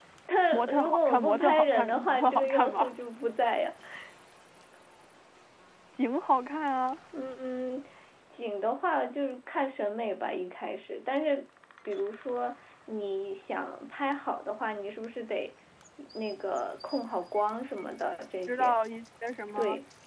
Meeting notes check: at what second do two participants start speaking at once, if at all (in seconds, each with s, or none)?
0.5 s